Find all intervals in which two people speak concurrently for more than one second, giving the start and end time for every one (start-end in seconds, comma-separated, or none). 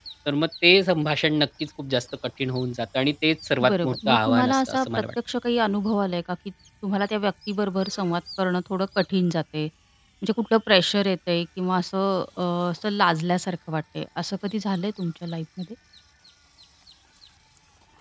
3.7-5.0